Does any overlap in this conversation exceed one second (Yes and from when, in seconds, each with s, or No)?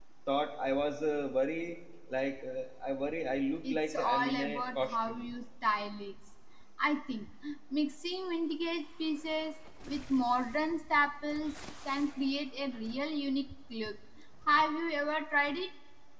Yes, from 3.7 s